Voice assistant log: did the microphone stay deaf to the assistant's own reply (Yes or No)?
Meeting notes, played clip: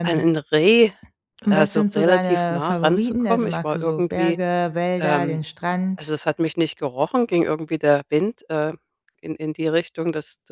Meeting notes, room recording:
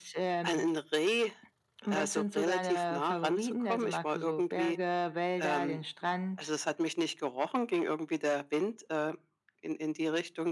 No